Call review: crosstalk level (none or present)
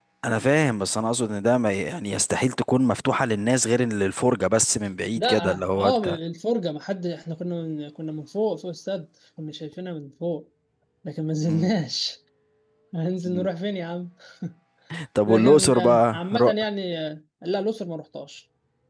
present